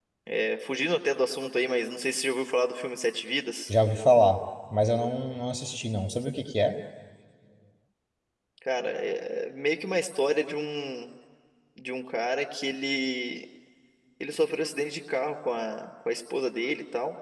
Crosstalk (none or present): none